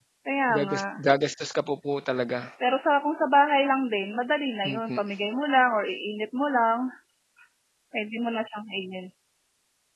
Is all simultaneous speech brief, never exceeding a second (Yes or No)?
Yes